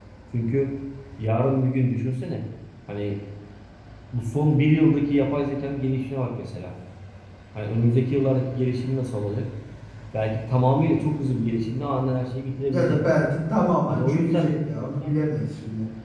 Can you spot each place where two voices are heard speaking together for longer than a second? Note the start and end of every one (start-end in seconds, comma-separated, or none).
13.9-15.2